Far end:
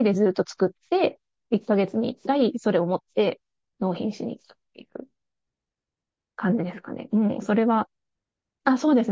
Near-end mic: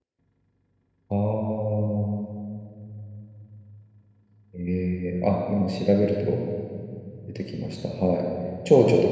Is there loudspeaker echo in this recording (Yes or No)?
No